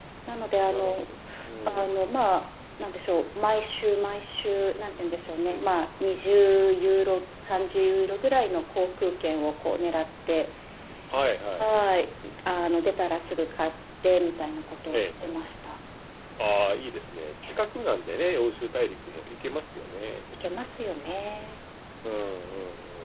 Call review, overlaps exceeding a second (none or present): none